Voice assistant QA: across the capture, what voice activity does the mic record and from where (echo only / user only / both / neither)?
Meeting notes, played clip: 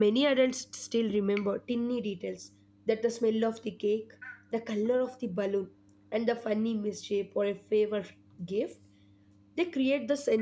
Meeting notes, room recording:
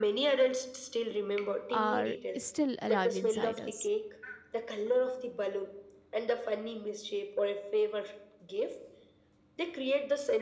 both